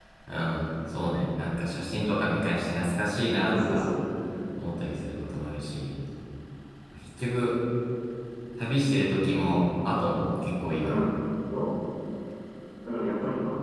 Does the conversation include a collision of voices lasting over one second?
No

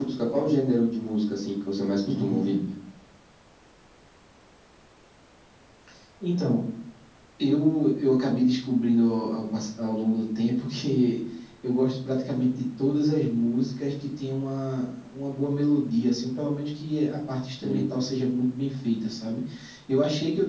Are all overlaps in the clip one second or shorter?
Yes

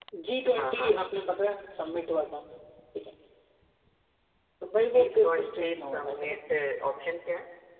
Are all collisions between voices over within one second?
No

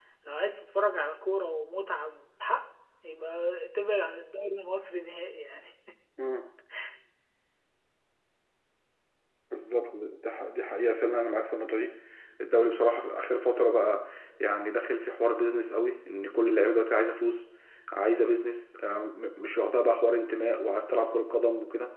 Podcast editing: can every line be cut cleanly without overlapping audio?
Yes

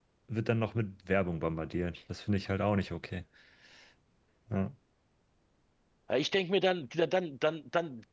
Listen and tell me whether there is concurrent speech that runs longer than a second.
No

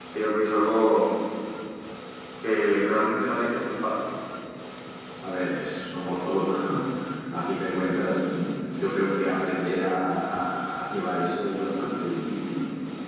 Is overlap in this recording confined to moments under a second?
Yes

